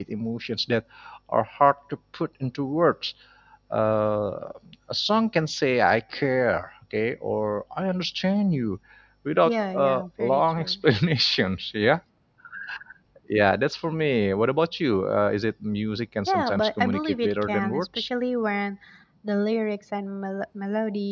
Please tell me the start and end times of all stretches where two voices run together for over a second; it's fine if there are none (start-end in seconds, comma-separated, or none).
9.4-10.8, 16.3-18.1